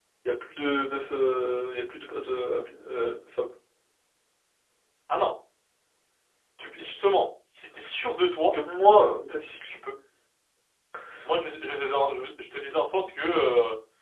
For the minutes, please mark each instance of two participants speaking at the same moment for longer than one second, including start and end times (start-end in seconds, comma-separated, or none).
none